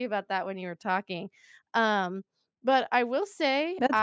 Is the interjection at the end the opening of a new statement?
Yes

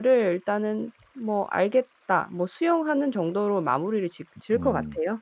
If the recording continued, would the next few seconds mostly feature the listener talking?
Yes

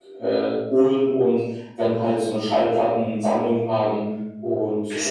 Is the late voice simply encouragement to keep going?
No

